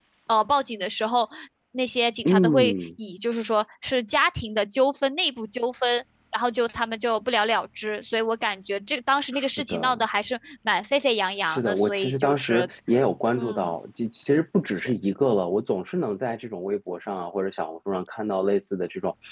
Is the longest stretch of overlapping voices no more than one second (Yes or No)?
No